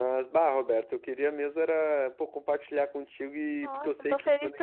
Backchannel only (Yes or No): No